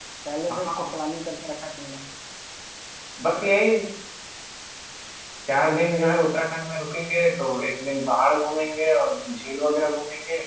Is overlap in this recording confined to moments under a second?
Yes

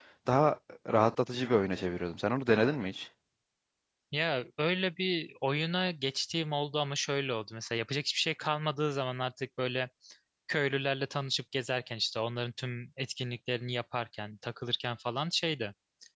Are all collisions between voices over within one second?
Yes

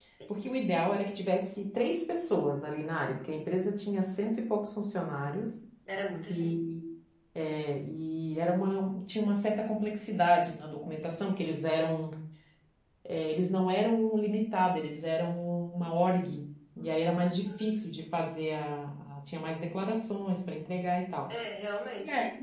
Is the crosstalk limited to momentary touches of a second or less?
Yes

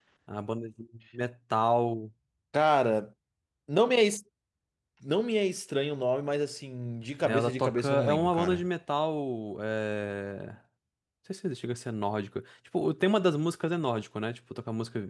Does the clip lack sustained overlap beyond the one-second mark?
No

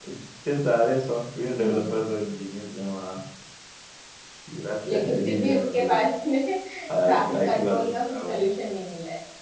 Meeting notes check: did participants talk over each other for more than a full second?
Yes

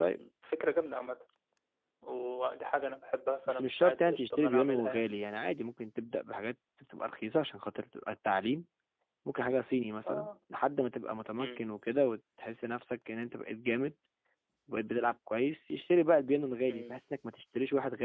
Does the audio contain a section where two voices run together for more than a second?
Yes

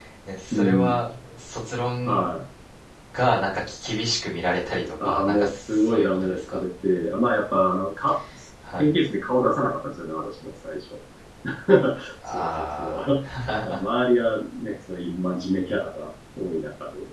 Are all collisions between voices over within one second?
No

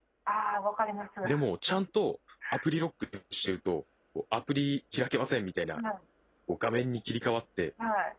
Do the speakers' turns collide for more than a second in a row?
No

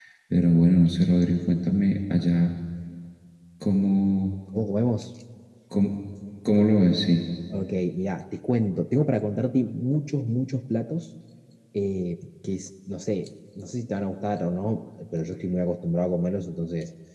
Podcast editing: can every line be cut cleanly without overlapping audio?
Yes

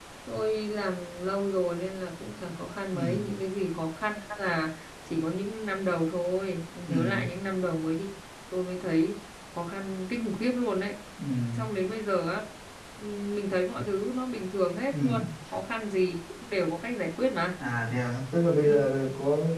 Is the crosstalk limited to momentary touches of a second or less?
Yes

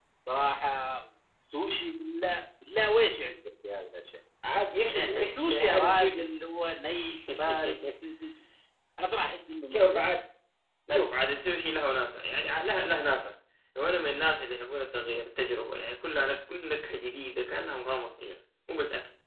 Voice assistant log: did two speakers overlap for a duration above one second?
Yes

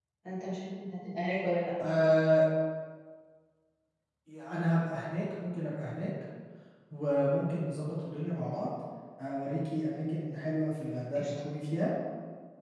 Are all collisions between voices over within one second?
Yes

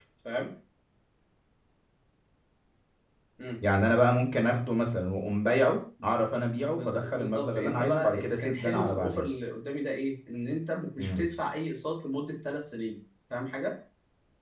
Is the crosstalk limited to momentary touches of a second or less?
No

